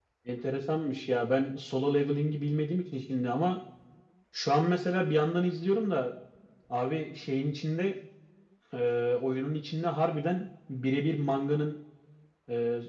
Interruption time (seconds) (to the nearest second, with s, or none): none